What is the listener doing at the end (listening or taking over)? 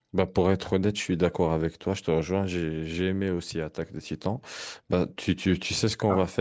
listening